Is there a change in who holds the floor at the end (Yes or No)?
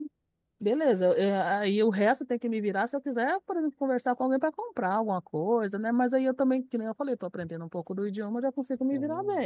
Yes